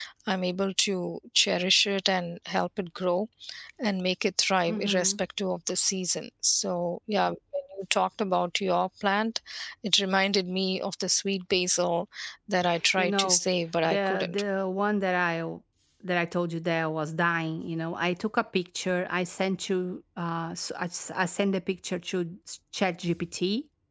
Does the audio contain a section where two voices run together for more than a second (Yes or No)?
No